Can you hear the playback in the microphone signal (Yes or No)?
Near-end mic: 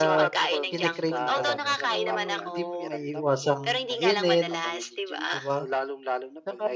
Yes